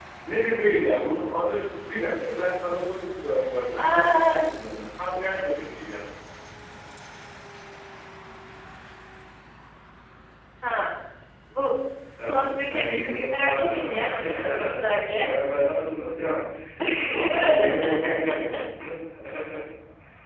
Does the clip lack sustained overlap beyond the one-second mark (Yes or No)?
No